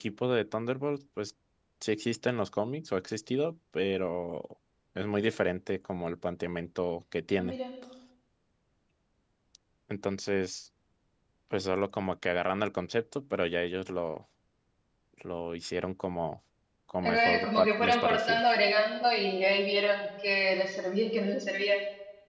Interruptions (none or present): present